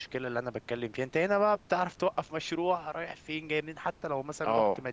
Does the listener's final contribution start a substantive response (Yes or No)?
No